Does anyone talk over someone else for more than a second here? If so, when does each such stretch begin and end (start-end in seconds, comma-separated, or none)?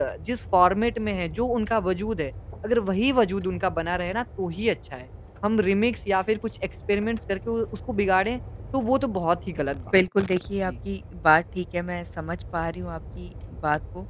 none